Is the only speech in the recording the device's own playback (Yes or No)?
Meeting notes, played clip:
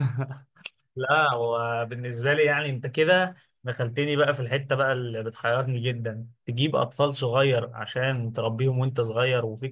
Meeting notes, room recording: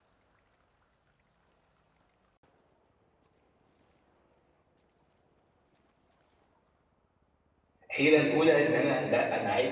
No